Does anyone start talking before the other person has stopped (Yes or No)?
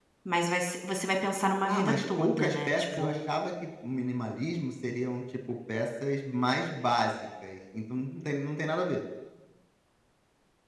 Yes